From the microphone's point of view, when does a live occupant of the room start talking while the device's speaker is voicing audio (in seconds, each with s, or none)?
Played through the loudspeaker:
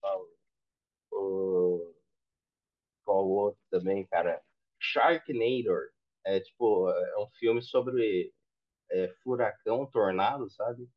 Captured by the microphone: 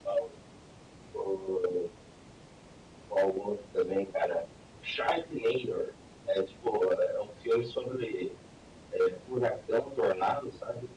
none